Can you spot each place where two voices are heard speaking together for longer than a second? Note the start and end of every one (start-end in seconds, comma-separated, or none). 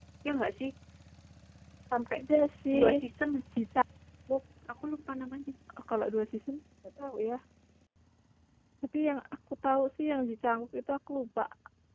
none